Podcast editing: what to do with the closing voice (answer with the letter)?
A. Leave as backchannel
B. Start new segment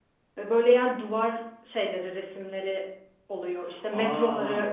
B